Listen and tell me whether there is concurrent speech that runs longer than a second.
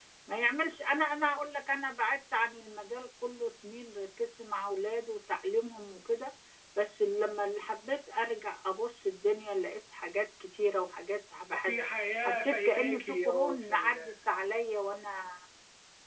Yes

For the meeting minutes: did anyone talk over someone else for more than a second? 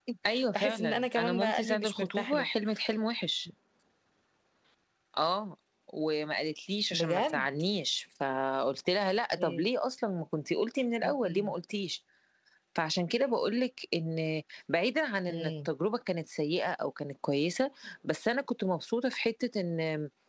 Yes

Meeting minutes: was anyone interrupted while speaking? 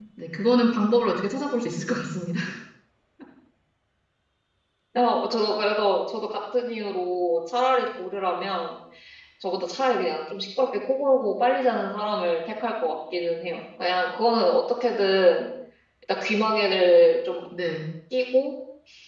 No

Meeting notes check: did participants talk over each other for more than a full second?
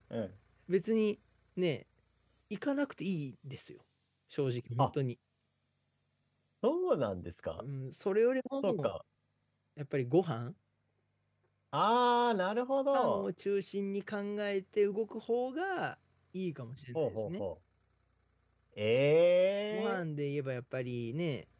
No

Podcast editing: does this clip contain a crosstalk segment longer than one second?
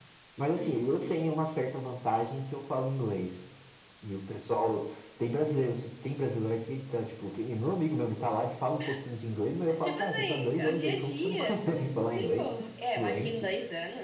Yes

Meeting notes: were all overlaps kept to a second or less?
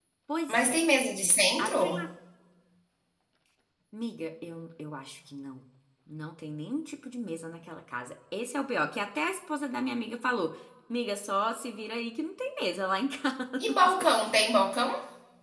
Yes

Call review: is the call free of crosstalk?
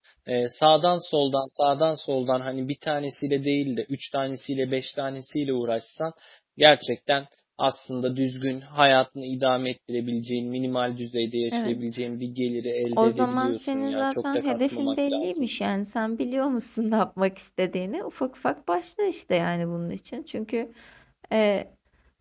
No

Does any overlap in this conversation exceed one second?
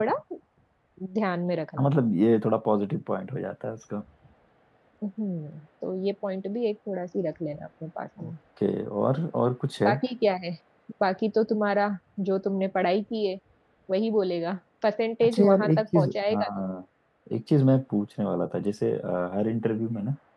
Yes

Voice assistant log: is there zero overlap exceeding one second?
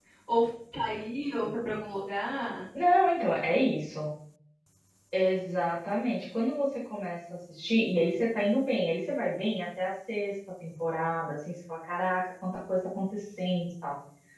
Yes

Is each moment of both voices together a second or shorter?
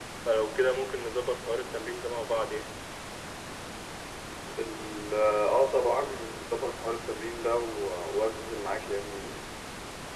Yes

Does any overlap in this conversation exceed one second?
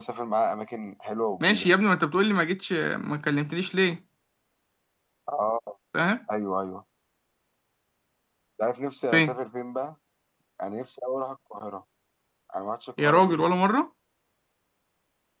No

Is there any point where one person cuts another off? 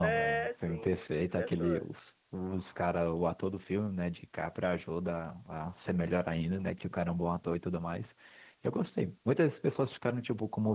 Yes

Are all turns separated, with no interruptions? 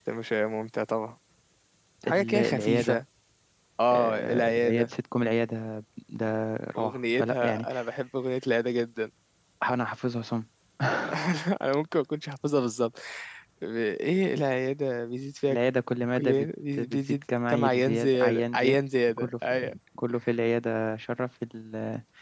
No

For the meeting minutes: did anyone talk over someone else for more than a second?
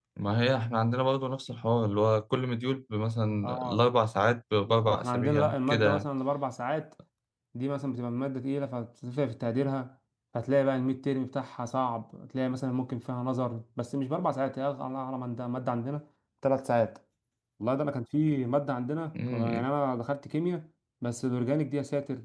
Yes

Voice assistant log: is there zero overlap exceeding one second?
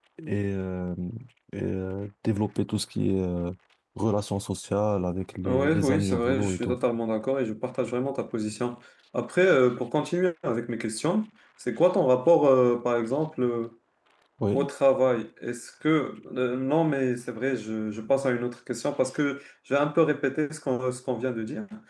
No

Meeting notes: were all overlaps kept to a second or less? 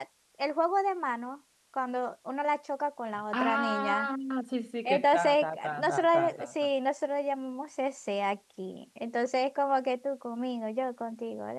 No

